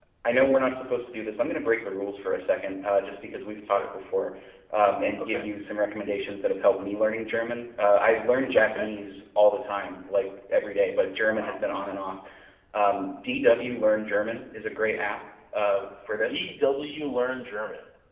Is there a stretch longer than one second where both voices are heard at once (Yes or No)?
No